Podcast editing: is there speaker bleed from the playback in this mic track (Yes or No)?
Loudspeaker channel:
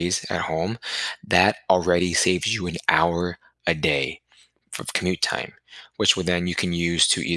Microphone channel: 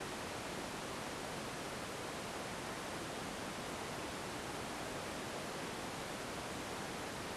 No